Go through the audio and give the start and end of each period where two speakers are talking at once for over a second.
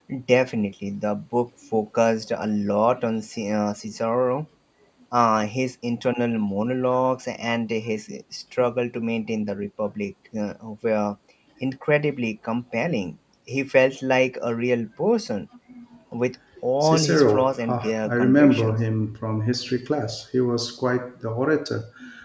16.8-18.8

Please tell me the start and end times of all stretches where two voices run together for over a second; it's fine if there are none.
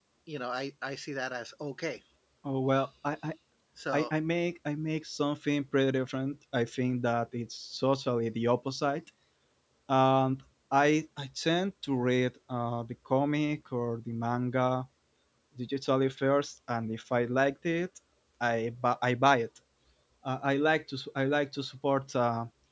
none

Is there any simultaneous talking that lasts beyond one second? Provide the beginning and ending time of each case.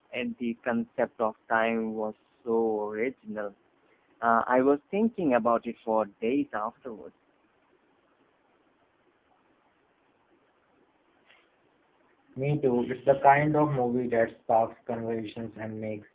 none

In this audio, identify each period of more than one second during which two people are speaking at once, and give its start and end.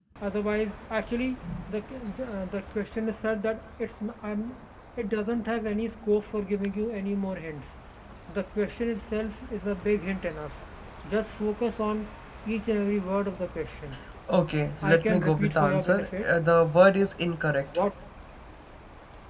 14.8-16.2

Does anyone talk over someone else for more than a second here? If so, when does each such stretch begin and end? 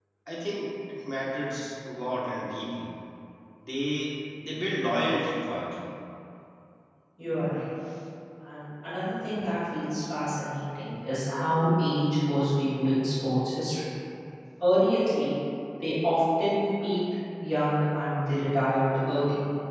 none

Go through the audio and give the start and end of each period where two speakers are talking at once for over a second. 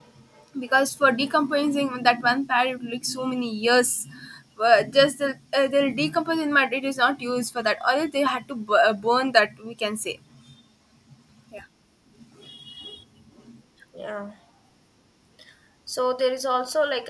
none

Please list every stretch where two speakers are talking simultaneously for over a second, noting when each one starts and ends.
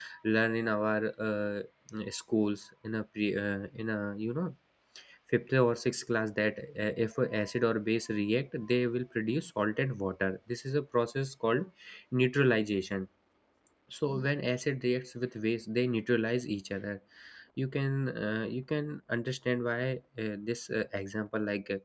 none

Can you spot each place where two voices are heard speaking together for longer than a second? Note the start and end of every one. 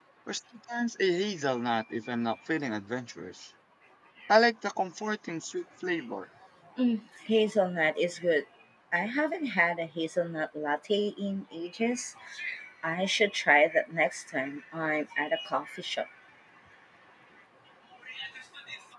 none

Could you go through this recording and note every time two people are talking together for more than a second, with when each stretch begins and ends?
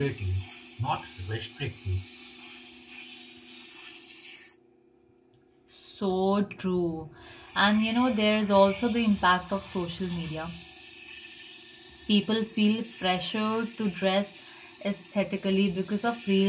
none

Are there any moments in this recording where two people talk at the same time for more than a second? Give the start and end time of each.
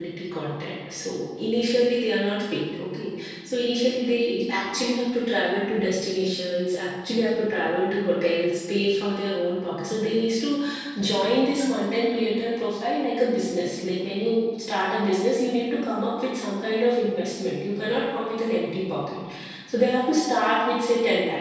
none

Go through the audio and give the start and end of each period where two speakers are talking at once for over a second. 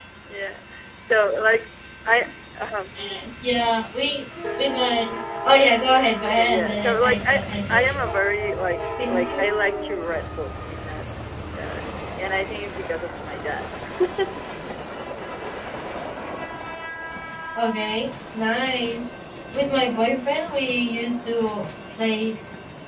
6.2-8.0

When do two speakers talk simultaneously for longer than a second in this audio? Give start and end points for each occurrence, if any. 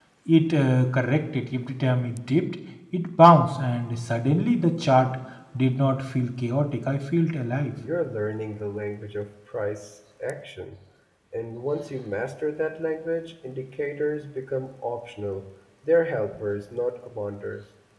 none

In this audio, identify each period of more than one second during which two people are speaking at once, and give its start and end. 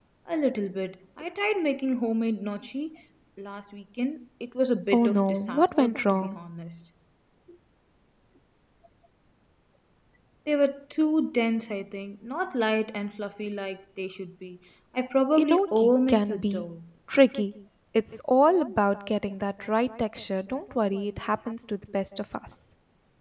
4.9-6.4, 15.4-16.7

